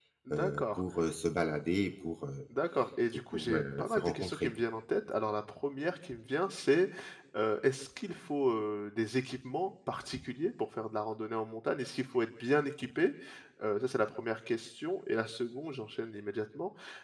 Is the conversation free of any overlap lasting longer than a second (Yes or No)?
No